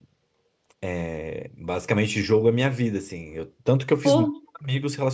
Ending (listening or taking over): listening